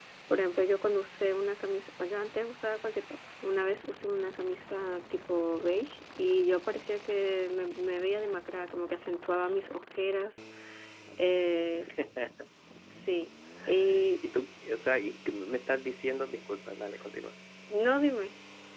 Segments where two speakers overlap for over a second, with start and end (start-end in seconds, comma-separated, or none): none